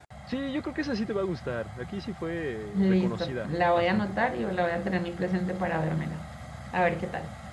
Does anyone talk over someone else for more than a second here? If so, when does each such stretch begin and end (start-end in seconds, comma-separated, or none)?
2.7-4.2